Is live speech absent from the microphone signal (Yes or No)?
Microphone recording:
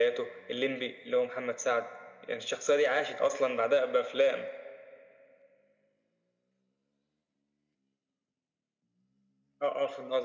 Yes